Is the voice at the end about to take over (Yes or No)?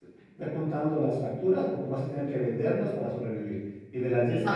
No